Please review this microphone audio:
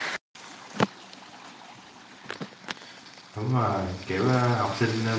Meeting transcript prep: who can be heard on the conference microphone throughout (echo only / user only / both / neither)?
user only